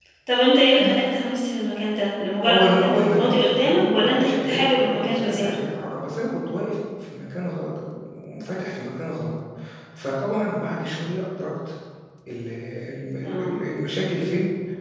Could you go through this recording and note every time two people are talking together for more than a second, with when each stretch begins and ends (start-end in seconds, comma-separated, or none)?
2.5-5.6